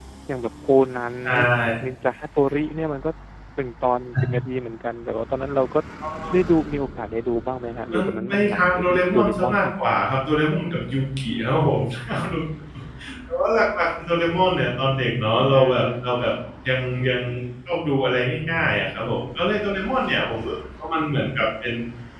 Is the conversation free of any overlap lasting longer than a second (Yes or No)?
No